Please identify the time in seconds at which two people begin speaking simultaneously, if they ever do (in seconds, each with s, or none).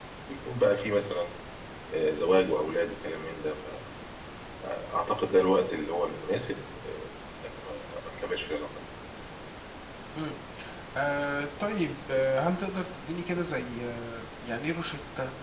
none